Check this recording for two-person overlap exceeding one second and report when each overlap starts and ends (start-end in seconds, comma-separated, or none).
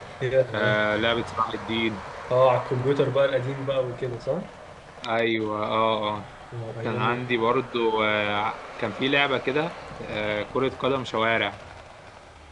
none